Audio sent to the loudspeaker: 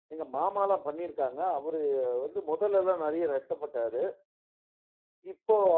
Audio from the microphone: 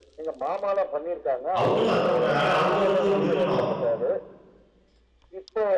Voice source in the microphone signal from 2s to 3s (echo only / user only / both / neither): both